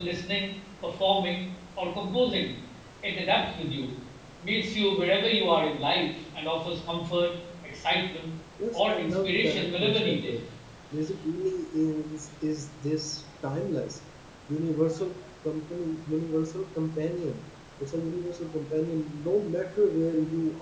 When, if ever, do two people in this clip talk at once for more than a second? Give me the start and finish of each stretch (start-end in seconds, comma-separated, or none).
8.7-10.4